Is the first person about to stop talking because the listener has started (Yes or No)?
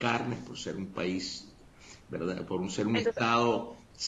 No